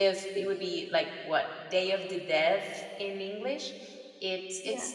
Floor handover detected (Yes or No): No